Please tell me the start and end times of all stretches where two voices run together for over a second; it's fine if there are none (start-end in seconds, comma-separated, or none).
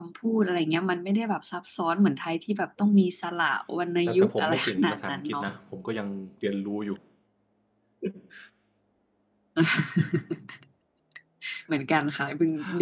4.1-5.4